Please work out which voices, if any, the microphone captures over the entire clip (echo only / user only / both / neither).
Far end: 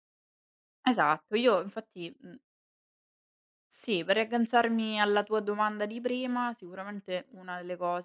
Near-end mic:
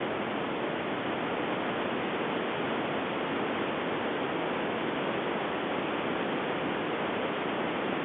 neither